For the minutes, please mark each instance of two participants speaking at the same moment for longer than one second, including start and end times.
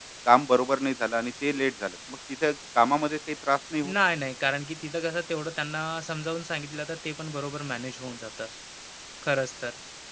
none

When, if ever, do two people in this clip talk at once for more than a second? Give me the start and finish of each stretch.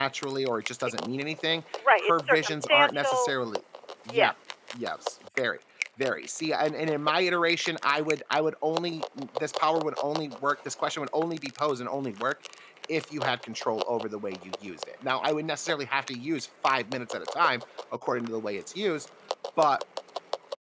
2.0-3.3

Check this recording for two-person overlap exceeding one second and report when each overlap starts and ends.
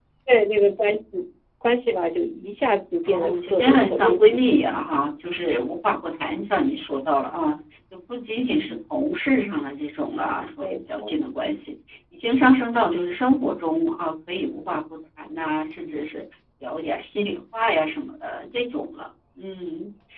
3.0-4.8

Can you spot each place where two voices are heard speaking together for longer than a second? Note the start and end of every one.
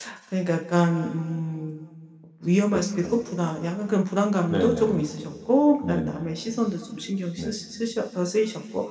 none

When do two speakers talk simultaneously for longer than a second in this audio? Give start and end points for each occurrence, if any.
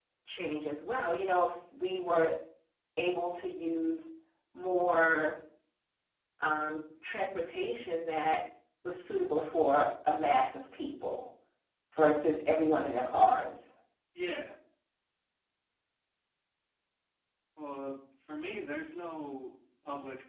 none

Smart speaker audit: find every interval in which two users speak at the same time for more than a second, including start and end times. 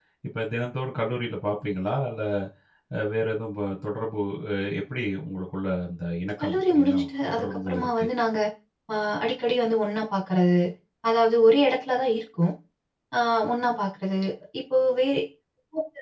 6.4-8.0

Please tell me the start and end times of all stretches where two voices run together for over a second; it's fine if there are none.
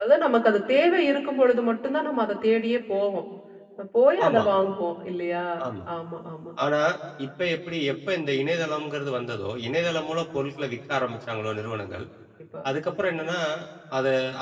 none

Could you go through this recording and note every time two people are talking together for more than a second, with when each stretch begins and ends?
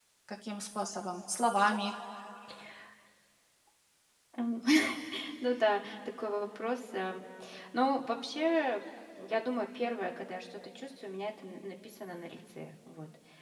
none

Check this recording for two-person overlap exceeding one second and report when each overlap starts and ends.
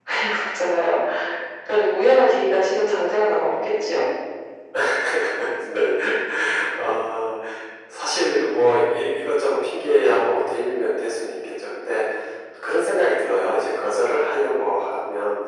none

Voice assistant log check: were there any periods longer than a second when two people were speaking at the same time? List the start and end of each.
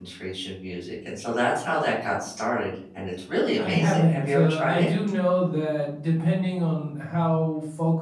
3.6-4.9

